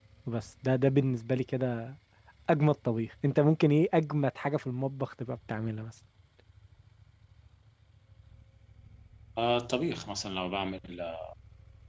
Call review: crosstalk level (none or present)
none